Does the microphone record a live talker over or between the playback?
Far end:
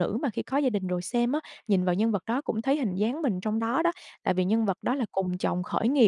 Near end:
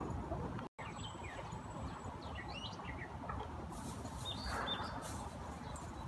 No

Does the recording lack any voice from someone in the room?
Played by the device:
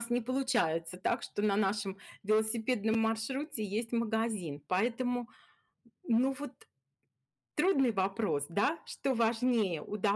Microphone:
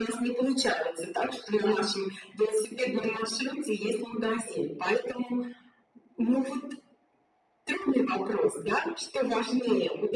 Yes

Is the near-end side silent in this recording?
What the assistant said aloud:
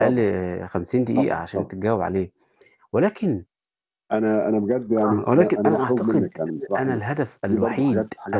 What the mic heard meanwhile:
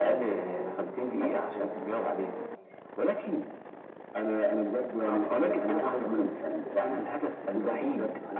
Yes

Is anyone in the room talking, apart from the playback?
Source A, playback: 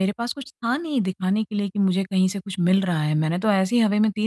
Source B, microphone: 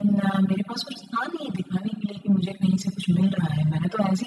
No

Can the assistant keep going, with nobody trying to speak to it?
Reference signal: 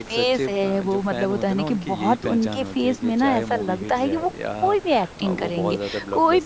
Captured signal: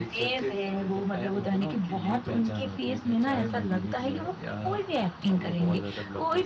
Yes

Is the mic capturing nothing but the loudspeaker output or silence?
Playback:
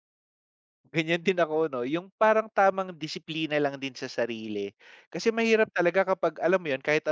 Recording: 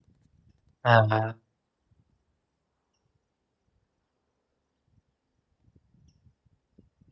No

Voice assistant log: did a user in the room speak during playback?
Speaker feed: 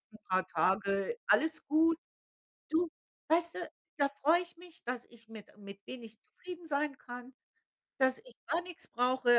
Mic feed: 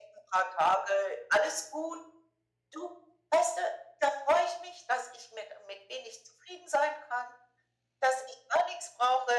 No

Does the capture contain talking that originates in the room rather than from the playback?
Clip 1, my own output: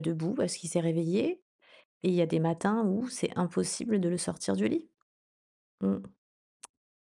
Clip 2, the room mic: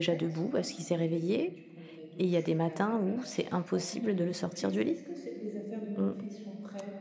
Yes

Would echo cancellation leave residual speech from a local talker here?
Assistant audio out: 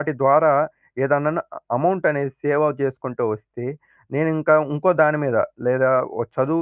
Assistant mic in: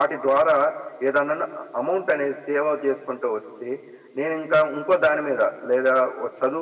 No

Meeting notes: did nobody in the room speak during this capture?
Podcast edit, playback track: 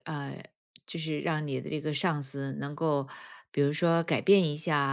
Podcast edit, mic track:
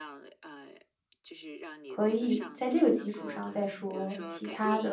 No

